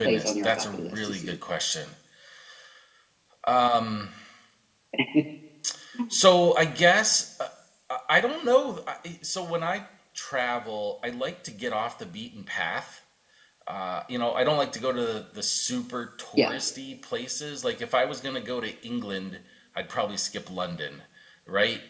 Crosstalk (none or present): present